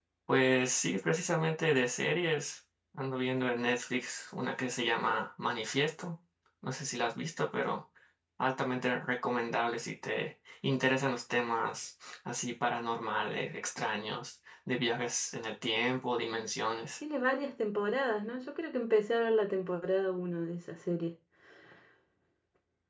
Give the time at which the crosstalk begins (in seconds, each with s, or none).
none